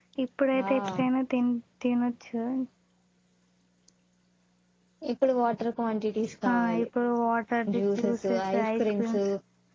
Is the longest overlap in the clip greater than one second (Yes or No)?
Yes